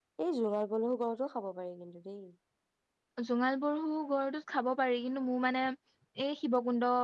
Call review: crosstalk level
none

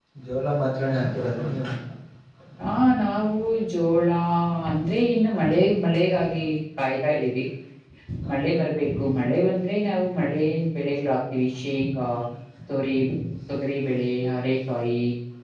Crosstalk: none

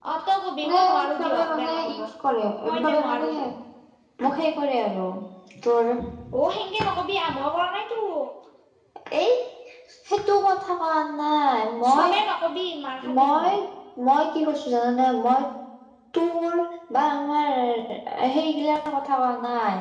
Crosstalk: present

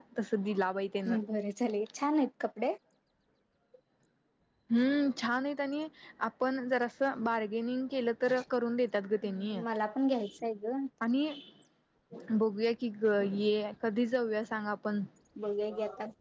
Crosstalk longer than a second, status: none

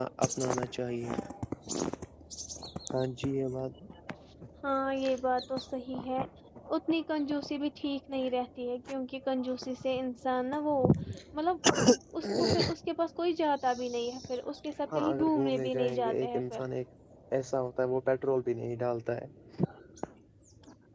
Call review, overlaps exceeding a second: present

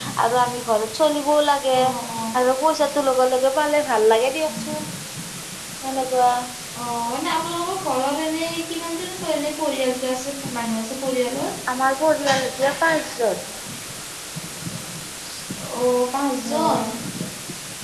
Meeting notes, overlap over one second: none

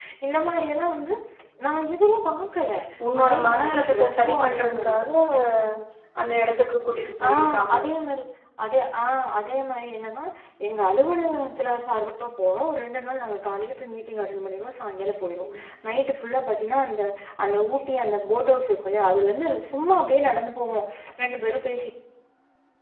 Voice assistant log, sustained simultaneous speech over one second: present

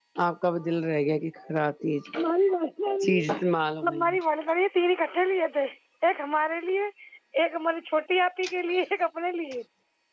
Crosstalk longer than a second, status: none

